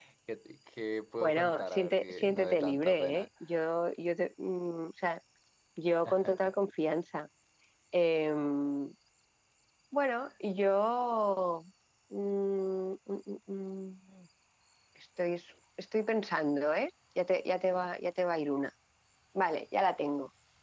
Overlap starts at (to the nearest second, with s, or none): 1 s